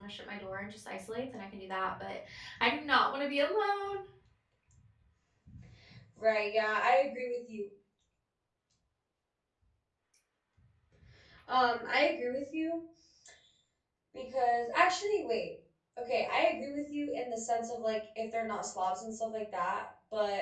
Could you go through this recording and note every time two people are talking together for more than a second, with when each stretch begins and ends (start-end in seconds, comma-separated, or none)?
none